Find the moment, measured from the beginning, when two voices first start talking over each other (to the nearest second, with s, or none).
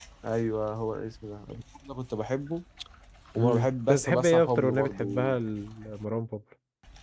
3 s